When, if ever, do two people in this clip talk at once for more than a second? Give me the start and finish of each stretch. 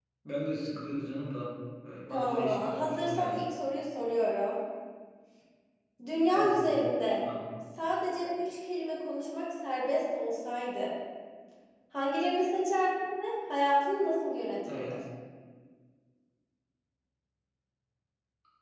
2.1-3.4

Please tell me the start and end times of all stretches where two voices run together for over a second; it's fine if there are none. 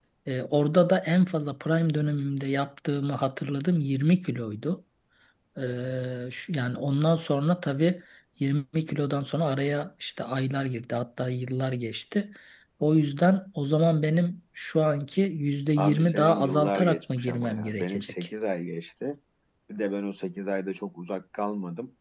15.8-18.1

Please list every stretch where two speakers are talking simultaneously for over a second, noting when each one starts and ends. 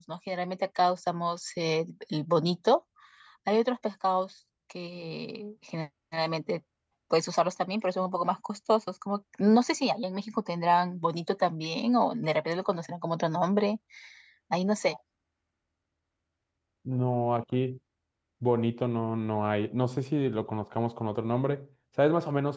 none

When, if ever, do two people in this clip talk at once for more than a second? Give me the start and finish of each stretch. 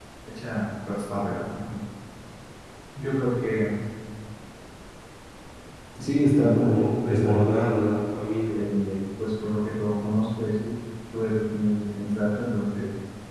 6.4-7.9

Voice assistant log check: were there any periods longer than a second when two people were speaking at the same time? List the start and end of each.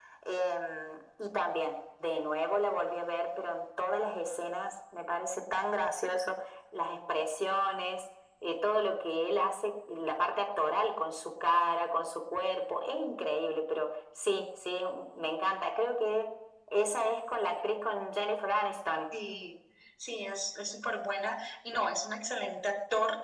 none

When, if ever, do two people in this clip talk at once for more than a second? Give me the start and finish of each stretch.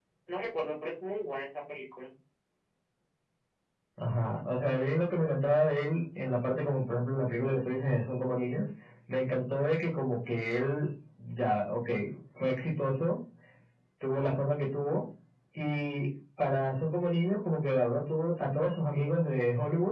none

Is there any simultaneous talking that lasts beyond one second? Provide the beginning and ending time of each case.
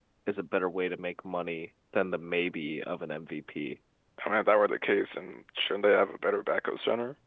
none

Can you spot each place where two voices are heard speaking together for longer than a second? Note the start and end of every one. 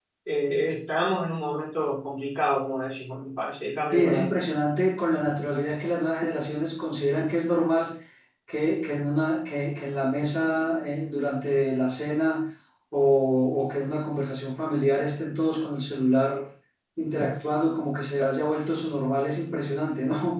none

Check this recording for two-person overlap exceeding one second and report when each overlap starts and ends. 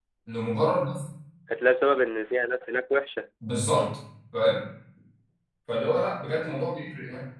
none

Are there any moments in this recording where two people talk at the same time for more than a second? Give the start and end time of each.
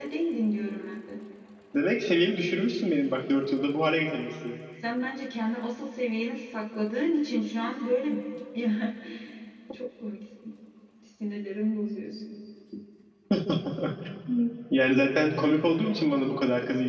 none

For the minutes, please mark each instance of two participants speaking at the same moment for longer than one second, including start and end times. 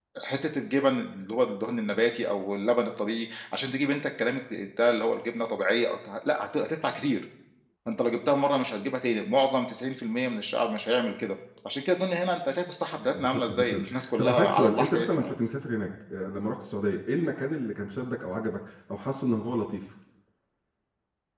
13.0-15.3

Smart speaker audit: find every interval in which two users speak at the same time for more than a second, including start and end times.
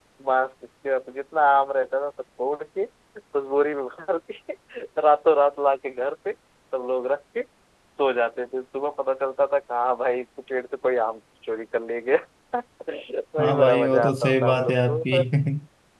13.4-15.2

